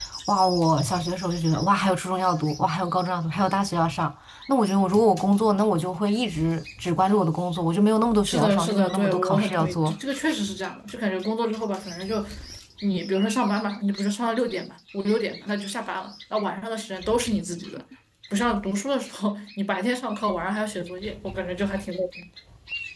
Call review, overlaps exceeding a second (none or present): present